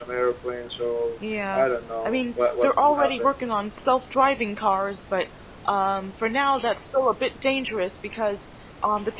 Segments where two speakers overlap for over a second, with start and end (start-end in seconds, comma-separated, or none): 2.0-3.3